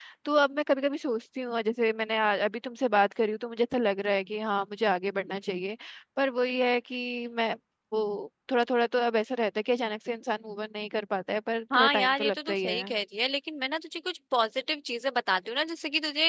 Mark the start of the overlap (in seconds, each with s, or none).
11.7 s